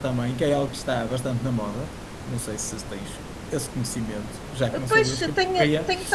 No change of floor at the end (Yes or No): No